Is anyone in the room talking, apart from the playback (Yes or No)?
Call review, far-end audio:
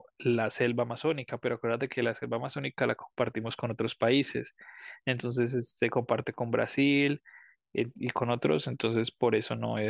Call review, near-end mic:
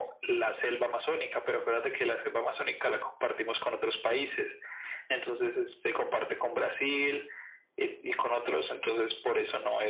No